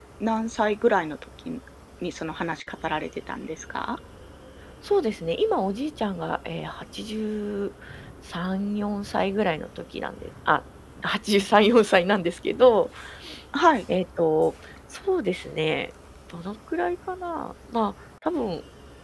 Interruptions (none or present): none